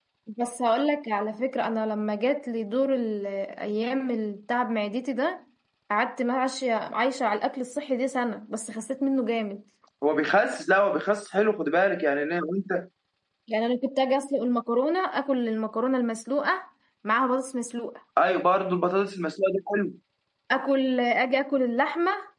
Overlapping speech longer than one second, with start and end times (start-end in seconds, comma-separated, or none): none